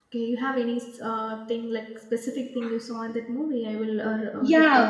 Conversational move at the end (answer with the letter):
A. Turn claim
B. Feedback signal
A